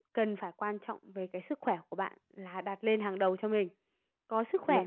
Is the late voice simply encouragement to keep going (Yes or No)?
Yes